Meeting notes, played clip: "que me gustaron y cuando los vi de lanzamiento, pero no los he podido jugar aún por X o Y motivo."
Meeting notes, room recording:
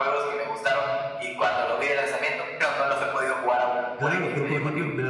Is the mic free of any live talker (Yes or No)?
No